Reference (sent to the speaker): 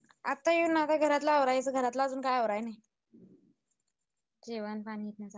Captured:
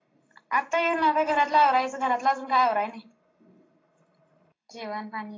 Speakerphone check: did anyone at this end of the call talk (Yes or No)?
No